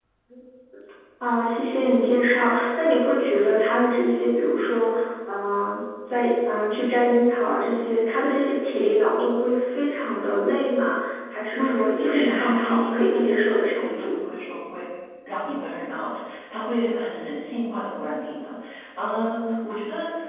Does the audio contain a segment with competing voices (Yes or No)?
Yes